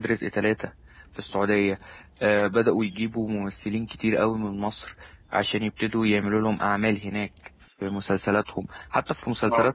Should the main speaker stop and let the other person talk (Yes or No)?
No